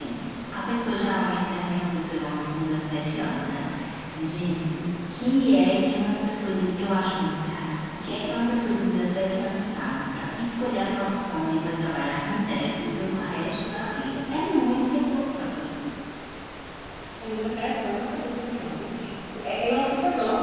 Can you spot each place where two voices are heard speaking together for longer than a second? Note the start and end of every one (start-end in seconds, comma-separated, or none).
none